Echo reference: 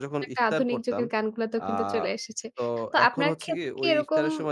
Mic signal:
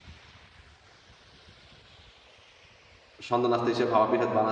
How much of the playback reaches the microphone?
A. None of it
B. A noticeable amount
A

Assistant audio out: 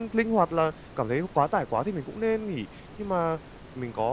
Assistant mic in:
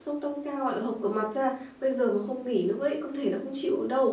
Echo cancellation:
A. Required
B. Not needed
B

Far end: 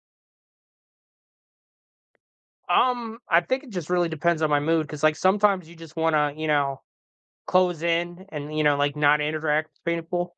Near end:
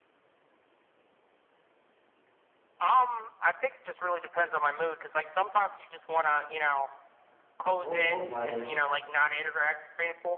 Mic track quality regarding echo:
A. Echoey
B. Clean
A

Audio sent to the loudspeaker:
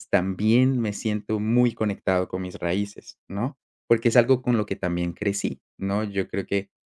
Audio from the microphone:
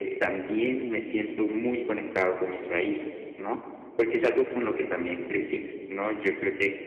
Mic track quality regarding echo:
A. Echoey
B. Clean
A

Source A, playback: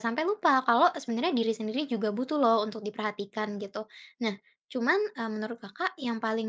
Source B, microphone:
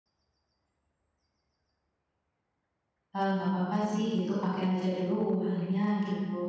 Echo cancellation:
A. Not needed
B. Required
A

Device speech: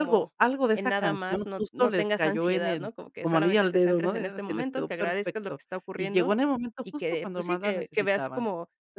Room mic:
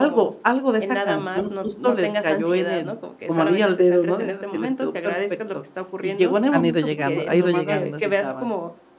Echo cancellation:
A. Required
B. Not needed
A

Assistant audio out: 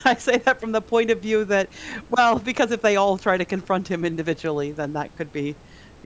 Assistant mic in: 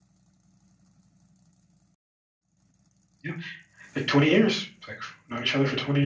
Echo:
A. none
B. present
A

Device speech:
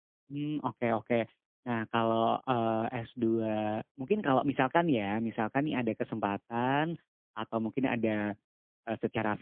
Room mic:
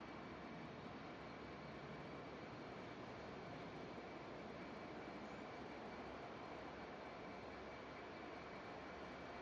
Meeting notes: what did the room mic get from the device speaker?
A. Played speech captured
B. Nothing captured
B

